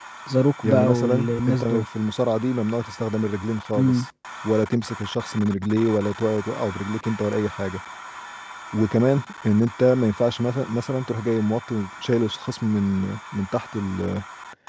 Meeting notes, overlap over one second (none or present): present